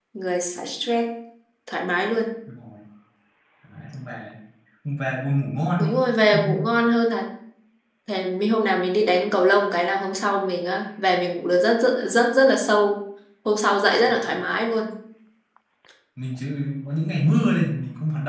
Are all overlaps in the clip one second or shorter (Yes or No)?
Yes